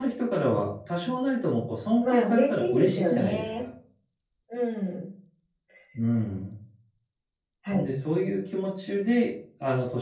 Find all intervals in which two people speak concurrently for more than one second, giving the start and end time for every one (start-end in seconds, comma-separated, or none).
2.0-3.5